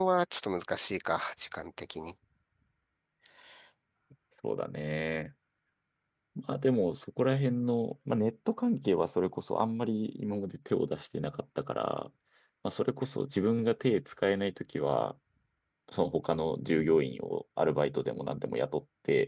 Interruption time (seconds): none

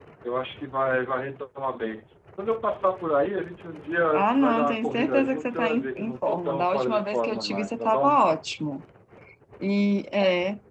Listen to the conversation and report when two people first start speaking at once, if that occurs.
4.4 s

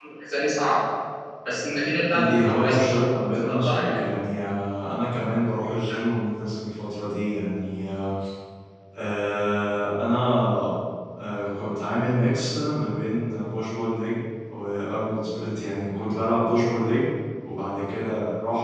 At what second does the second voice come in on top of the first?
2.1 s

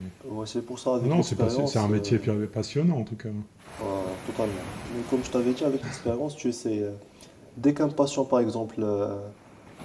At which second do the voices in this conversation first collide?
1.0 s

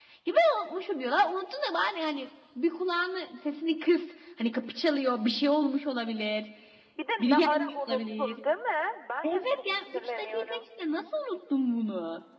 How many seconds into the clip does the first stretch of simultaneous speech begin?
7.2 s

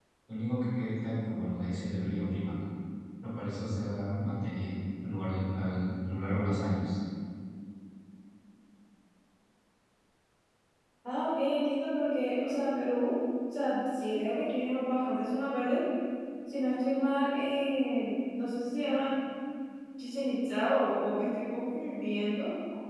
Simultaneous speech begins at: none

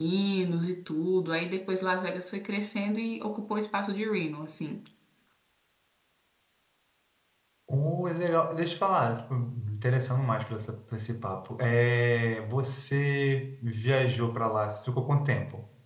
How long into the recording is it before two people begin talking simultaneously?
none

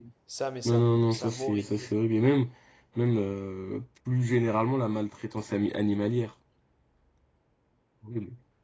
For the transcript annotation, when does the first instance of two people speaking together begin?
0.6 s

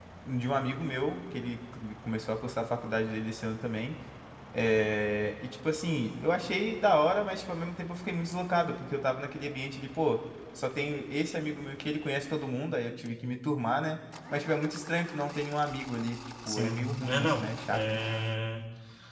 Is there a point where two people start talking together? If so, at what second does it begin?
16.5 s

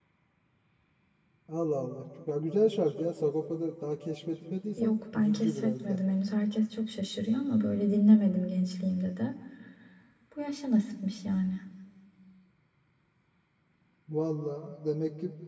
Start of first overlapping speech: 4.8 s

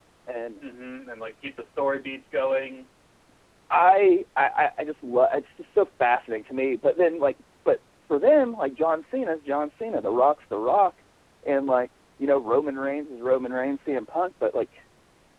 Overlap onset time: none

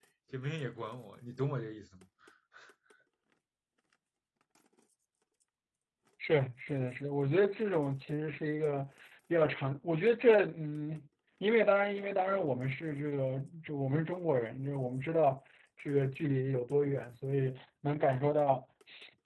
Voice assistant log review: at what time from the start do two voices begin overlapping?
none

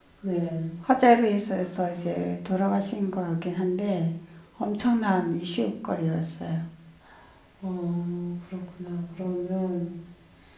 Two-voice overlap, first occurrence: none

